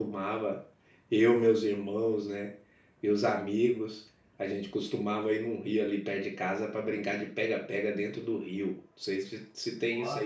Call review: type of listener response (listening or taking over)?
listening